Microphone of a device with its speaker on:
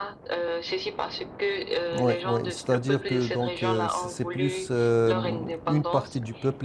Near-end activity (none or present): present